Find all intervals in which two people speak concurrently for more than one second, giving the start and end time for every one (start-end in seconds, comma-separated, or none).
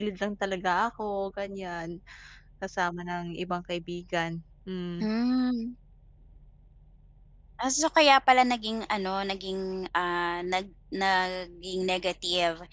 none